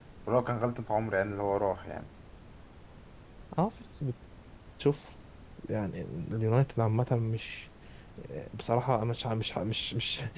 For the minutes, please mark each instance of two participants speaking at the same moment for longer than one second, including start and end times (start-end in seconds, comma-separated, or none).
none